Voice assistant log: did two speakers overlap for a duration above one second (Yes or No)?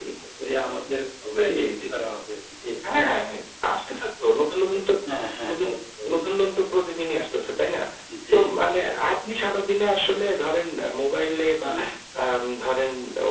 No